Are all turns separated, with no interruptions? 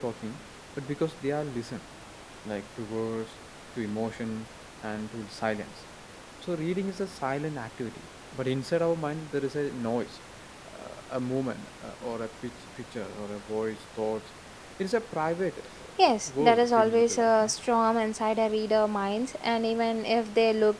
No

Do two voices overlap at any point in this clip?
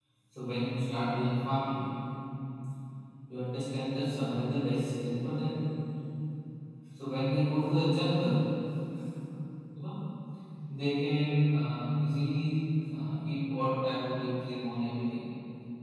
No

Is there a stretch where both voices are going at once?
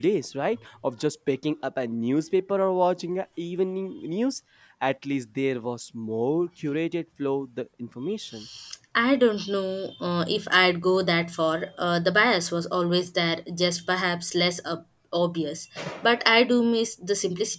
No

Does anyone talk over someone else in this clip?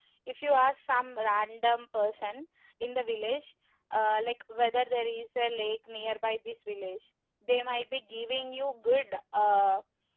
No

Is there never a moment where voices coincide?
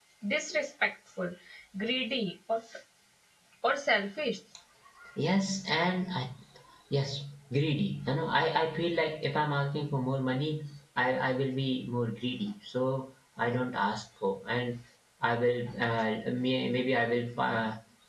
Yes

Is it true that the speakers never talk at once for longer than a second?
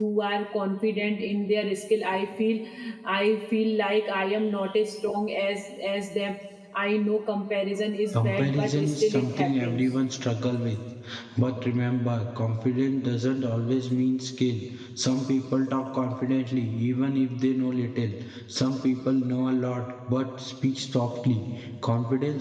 No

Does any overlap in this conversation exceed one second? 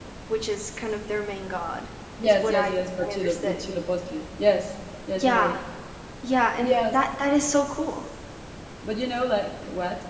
Yes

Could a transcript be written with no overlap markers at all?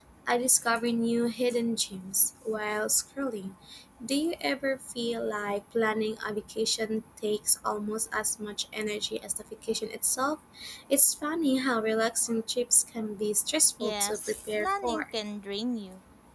No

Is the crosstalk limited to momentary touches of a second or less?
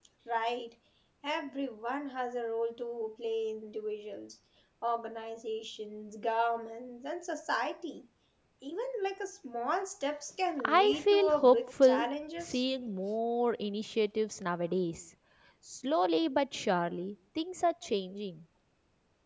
No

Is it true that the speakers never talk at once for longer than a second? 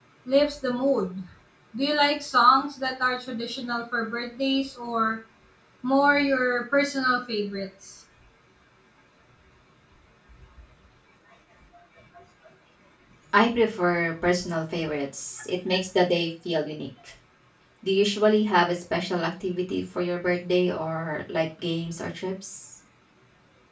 Yes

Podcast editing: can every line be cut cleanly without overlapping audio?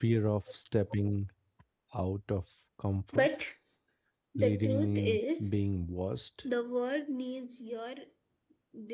No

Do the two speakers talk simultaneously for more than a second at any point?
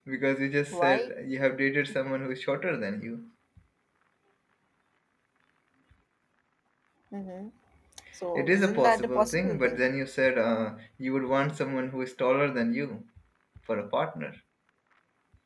Yes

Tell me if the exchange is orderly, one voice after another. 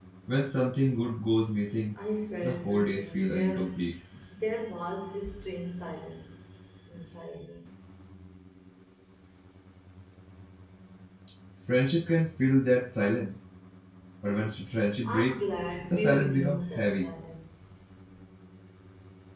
No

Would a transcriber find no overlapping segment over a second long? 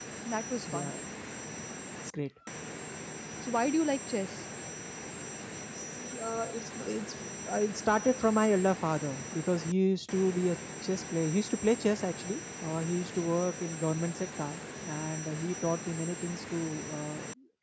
Yes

